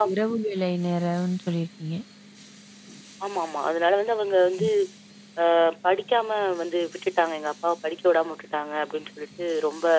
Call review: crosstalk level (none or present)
none